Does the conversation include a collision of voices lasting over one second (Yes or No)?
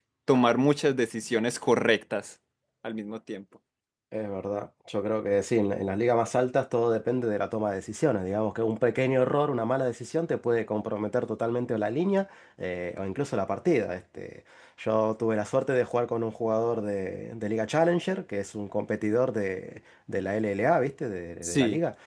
No